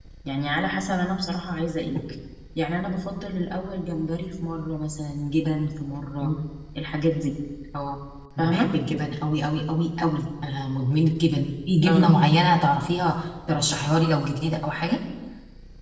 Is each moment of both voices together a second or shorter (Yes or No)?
Yes